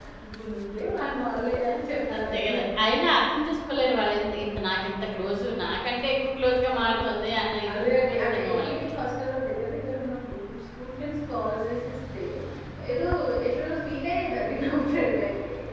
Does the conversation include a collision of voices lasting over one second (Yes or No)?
Yes